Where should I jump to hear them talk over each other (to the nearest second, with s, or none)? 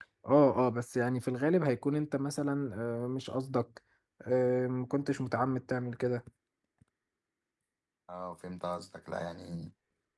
none